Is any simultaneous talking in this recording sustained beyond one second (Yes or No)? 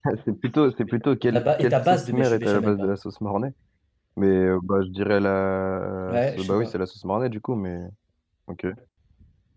Yes